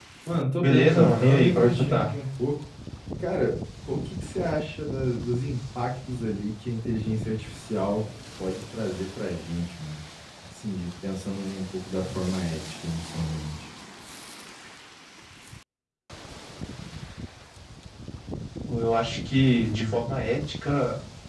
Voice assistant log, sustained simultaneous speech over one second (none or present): present